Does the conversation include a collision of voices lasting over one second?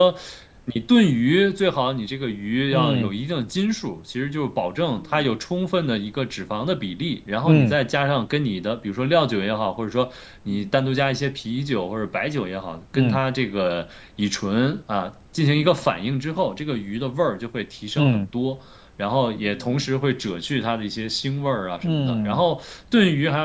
No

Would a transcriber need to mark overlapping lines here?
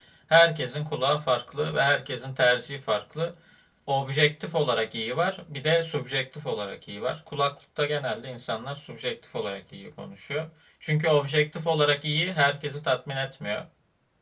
No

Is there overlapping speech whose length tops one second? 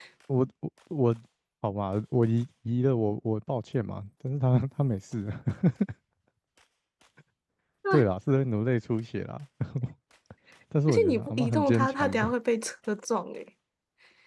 Yes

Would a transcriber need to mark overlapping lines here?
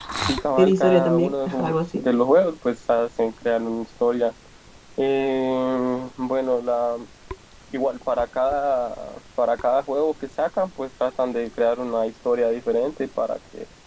Yes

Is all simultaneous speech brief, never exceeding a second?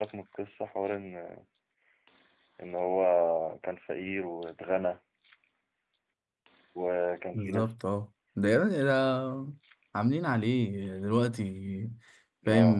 Yes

